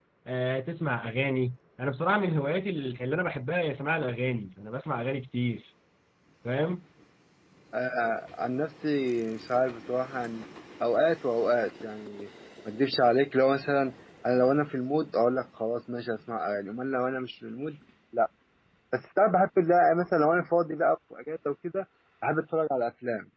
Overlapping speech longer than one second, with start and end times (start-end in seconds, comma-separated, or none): none